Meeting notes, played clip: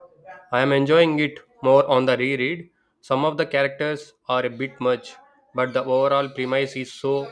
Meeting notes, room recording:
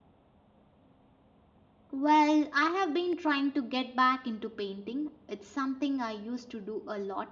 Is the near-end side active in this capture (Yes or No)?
Yes